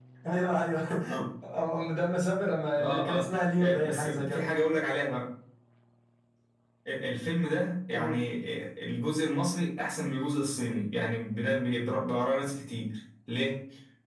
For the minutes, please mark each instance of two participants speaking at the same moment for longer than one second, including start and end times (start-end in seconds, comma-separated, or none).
2.8-4.4